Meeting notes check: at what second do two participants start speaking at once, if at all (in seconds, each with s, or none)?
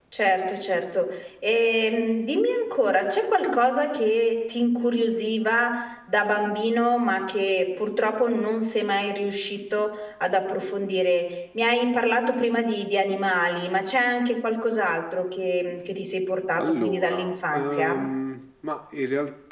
16.6 s